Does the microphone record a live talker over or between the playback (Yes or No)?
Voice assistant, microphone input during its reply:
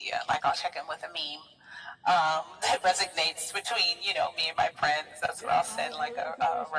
Yes